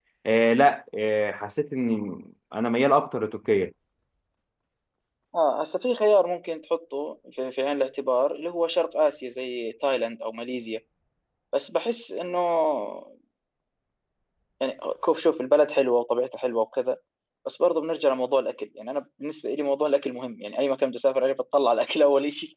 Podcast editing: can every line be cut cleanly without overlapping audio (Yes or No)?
Yes